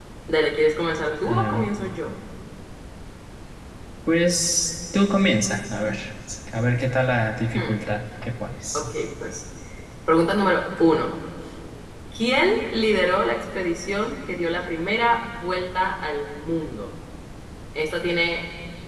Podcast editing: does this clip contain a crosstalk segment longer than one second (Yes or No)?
No